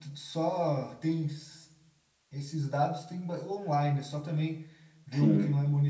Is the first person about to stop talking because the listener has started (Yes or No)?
No